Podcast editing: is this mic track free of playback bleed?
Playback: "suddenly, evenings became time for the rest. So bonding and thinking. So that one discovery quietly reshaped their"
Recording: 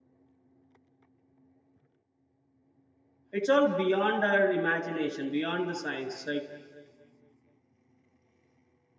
Yes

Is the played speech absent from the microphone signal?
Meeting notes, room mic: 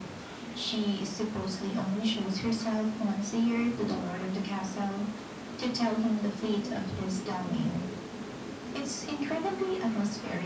No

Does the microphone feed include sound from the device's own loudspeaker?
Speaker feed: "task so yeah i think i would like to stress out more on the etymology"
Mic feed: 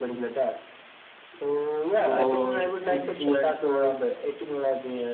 Yes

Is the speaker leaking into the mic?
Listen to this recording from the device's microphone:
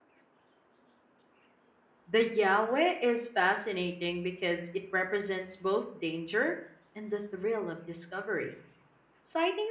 No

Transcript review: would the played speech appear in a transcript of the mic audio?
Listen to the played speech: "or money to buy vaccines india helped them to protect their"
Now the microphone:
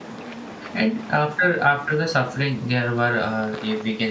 No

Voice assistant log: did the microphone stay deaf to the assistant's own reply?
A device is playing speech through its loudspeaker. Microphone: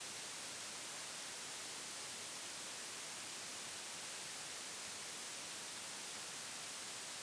Yes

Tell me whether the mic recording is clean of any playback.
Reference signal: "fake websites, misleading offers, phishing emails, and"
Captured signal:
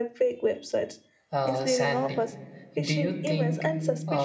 No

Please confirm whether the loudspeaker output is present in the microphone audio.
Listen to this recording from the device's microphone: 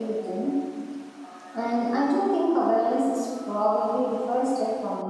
No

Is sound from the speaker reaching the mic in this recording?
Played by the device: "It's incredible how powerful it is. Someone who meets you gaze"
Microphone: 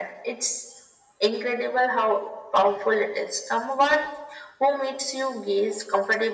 Yes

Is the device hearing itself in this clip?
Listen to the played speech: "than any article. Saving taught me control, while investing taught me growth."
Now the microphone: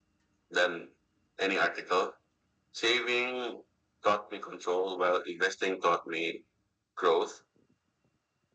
Yes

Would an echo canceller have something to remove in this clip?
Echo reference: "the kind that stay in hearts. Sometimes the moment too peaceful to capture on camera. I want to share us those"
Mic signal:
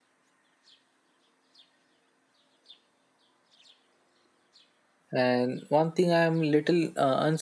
No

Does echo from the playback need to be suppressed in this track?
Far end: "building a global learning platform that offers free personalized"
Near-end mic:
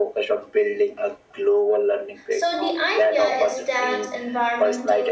Yes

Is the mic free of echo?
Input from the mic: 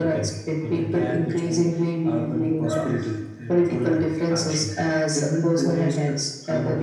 No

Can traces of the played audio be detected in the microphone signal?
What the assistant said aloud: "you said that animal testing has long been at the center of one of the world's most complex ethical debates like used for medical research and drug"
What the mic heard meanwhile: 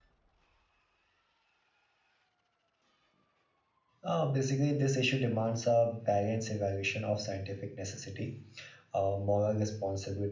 No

